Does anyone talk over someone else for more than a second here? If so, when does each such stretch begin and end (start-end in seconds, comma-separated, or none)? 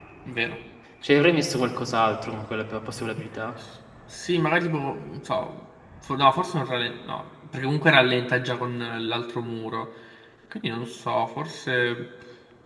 none